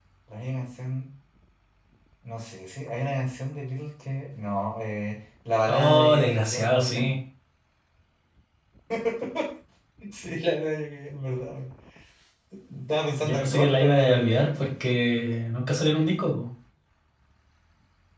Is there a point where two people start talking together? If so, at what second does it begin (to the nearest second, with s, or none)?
6 s